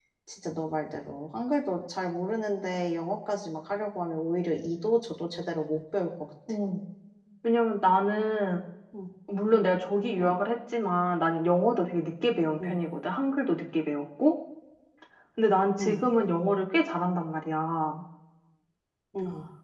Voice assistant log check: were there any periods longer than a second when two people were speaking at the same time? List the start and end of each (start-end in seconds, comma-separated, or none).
none